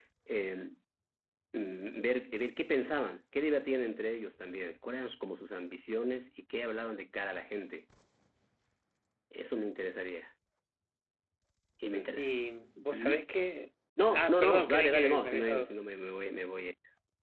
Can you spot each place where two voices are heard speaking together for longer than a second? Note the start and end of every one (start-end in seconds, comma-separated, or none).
14.1-15.7